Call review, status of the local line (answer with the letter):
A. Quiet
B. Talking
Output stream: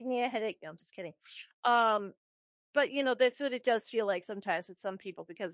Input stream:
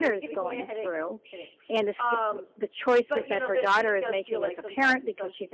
B